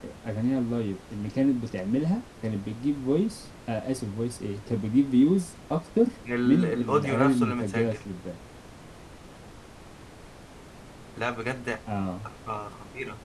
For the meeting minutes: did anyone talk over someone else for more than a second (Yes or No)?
Yes